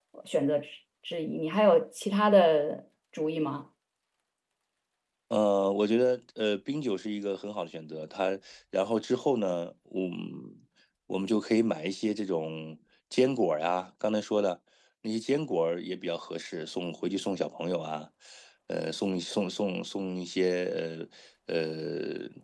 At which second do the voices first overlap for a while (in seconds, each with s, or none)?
none